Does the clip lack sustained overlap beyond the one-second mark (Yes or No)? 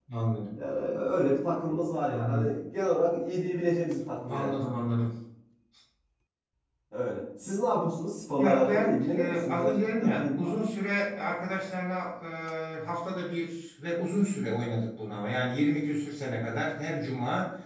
No